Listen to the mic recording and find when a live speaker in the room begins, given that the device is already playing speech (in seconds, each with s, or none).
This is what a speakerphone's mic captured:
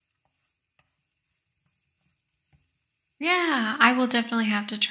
3.2 s